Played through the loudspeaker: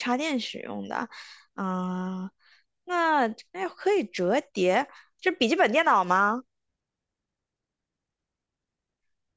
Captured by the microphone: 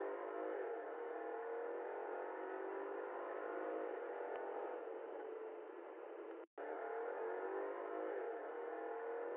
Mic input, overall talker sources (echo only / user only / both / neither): neither